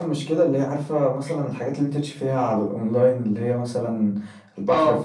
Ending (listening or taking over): listening